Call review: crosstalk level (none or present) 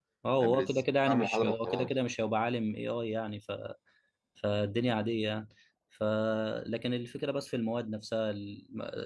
present